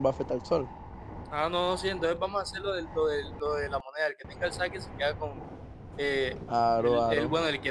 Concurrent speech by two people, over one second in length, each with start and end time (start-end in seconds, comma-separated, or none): none